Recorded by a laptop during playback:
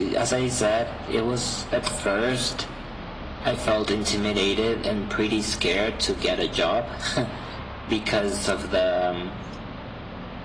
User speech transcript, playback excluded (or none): none